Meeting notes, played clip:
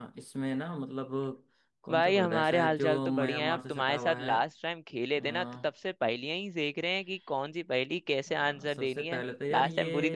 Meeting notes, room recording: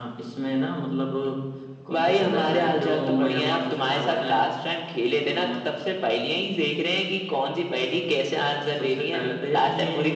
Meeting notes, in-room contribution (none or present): none